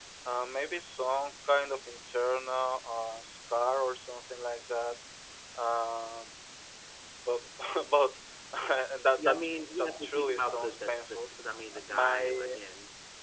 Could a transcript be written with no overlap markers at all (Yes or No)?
No